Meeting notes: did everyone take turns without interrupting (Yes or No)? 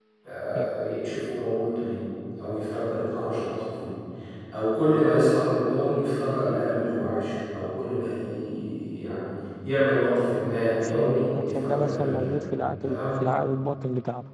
No